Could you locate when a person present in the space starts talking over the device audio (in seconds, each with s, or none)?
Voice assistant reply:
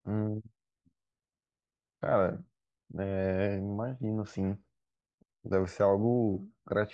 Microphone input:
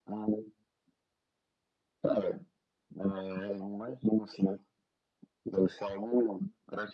none